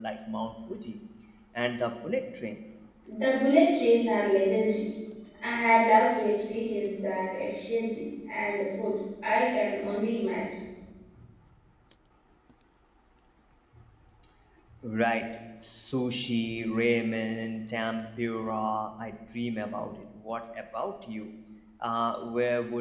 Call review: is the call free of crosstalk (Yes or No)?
Yes